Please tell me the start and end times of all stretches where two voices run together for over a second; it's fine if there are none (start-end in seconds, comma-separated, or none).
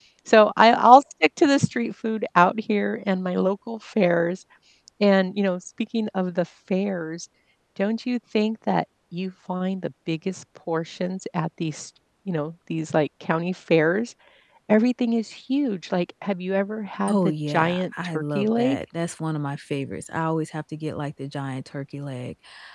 17.1-18.8